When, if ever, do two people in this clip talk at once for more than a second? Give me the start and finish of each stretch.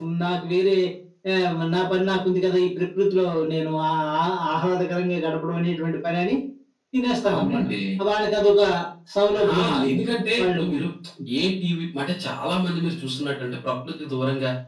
none

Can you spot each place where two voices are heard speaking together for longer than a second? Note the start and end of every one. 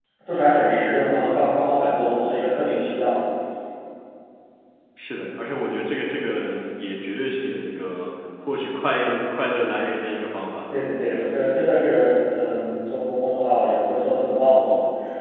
none

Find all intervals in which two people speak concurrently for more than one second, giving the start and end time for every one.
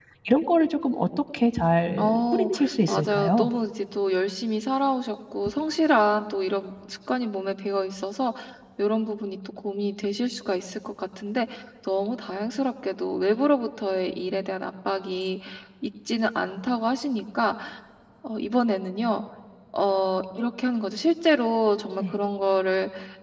2.0-3.5

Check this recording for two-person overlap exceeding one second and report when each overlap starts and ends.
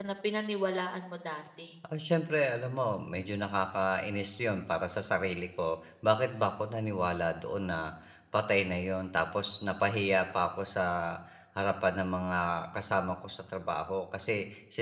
none

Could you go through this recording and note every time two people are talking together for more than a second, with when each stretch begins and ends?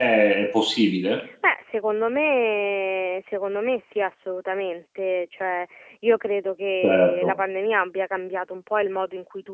none

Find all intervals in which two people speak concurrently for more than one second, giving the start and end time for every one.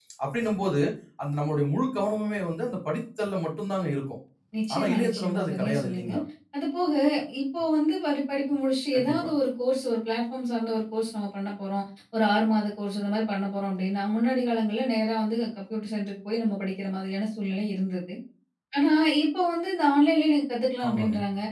4.8-6.1

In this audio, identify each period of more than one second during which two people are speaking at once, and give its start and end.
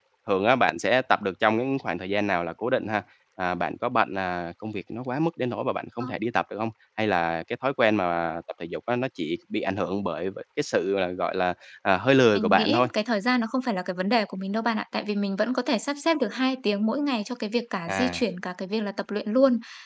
none

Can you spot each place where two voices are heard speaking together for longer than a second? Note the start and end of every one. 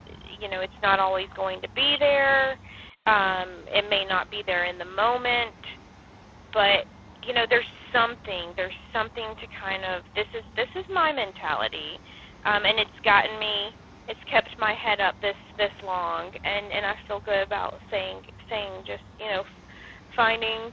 none

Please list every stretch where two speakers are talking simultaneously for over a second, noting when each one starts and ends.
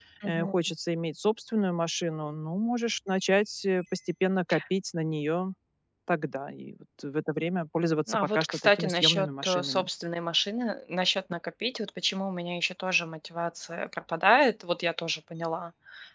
8.1-9.9

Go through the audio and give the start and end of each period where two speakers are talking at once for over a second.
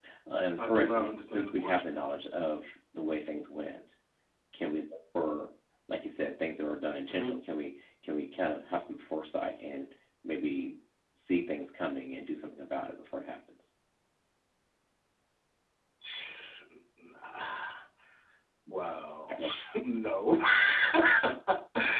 0.6-2.0

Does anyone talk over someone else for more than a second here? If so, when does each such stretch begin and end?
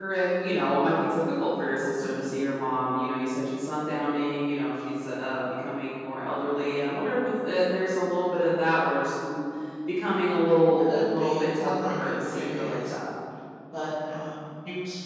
10.8-12.9

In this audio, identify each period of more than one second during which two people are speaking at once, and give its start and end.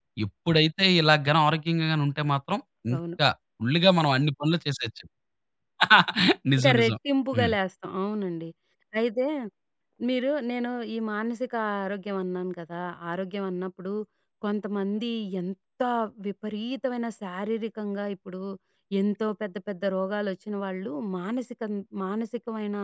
none

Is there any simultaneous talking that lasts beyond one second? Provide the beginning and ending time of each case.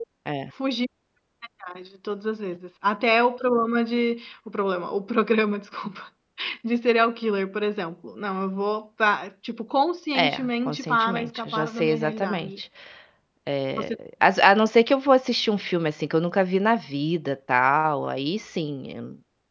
10.2-12.5

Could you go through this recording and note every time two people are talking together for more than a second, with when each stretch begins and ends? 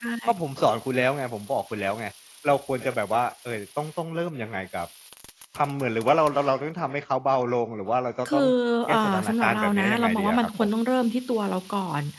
8.9-10.7

